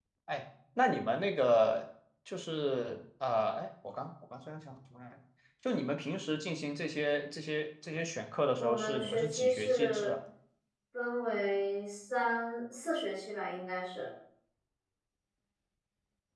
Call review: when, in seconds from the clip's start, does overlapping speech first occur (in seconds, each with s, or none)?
8.6 s